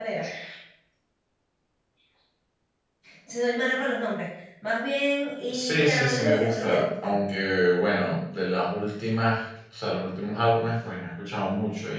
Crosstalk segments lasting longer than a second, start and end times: 5.5-7.2

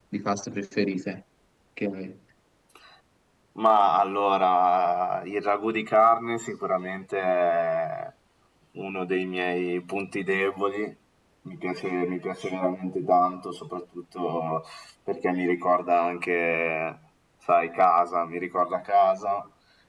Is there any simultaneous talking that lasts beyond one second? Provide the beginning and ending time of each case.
none

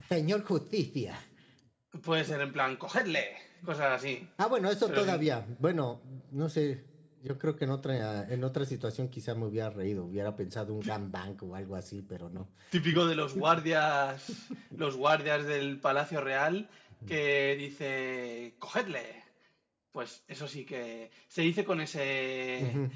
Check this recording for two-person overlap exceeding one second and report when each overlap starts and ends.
none

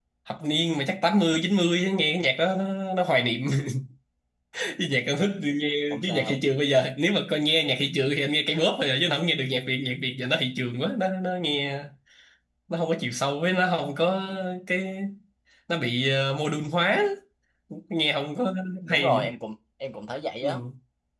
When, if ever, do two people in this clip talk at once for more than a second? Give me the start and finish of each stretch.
none

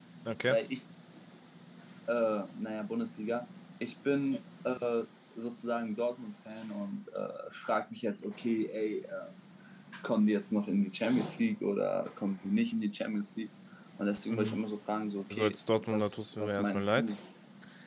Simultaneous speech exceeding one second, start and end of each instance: 15.3-17.1

